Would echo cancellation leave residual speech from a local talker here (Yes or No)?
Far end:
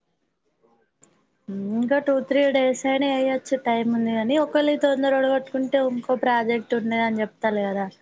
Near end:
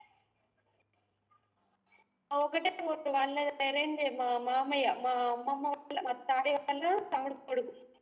Yes